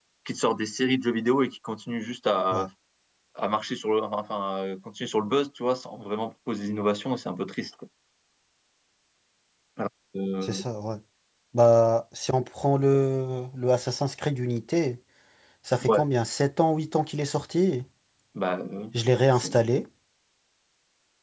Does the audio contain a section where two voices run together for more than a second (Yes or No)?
No